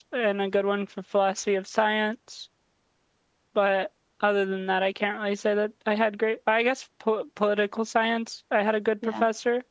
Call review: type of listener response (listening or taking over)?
listening